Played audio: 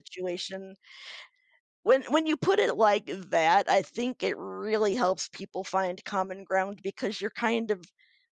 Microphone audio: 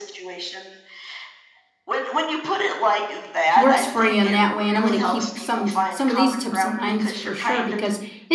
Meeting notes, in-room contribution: present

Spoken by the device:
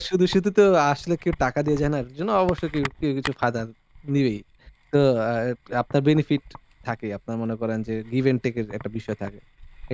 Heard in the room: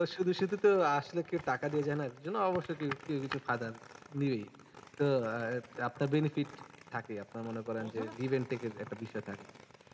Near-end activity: present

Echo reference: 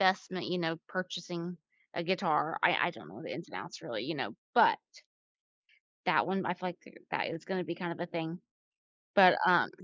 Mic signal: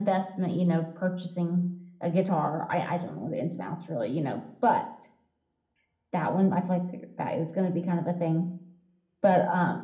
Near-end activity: none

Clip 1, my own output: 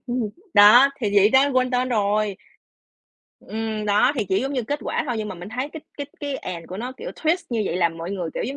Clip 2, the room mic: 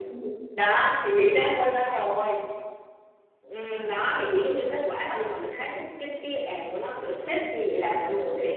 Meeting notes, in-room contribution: none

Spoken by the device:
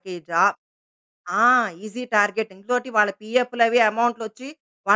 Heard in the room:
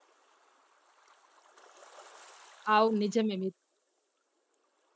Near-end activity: present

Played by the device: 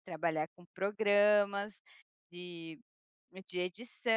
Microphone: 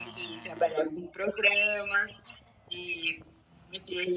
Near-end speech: none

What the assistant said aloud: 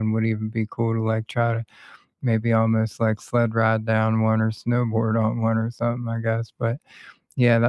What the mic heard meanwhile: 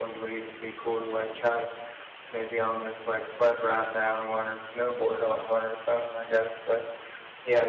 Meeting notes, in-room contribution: none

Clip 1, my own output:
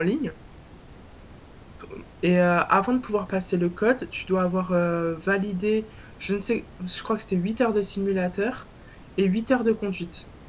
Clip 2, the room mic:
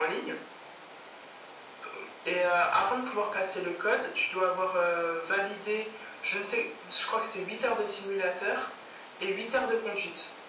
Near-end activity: none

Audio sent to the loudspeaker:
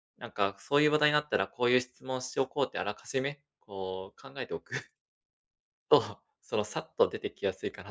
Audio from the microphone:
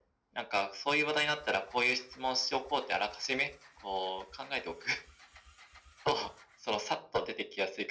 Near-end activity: none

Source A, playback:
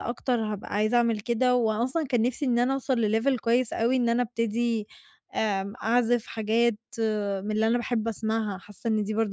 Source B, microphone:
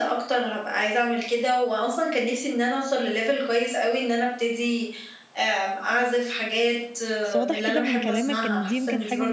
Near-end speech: present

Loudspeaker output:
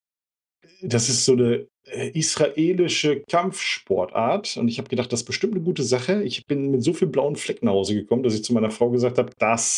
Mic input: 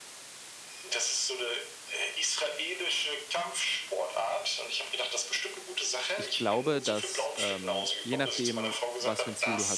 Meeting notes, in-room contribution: present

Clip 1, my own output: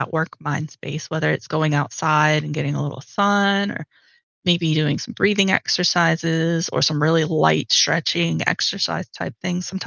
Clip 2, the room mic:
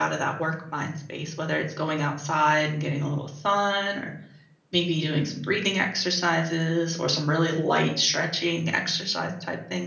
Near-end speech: none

